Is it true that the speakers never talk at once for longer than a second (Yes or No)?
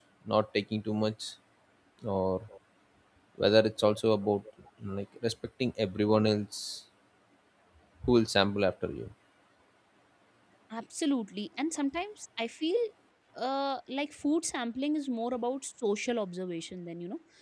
Yes